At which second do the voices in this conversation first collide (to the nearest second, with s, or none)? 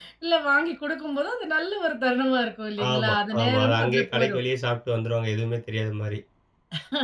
3 s